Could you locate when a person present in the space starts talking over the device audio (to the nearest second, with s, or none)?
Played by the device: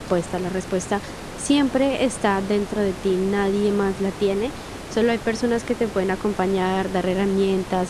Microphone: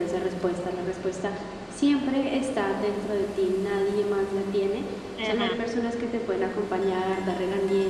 5 s